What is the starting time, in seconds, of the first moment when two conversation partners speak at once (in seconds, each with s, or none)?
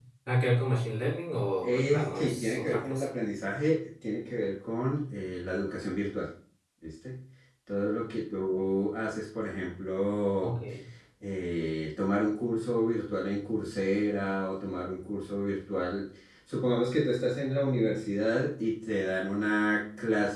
1.6 s